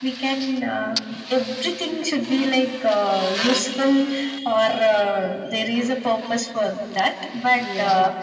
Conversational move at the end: listening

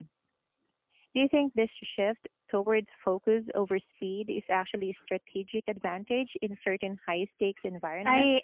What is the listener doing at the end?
taking over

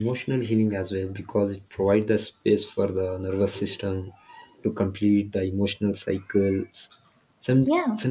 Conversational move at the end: listening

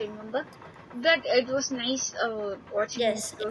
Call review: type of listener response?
taking over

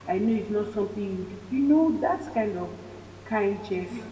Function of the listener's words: taking over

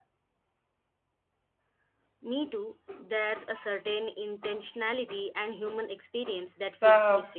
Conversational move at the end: taking over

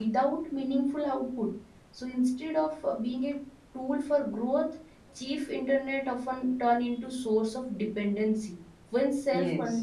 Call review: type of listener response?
listening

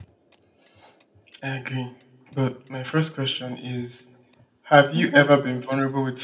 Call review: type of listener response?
listening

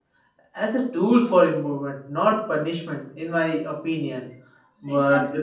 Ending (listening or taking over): listening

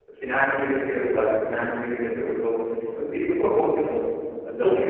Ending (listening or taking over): listening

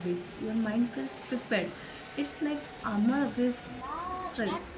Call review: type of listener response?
taking over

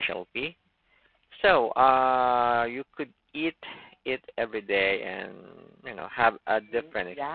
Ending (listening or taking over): taking over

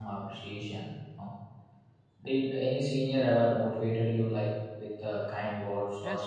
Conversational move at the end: taking over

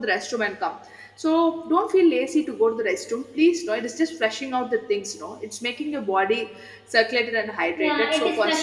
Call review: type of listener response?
taking over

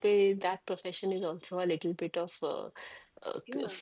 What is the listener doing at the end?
taking over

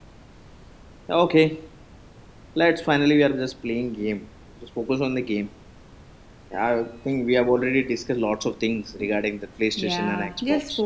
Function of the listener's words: taking over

